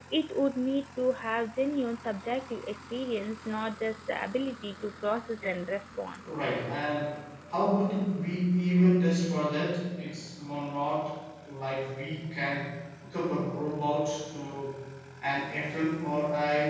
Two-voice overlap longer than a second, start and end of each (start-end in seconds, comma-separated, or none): none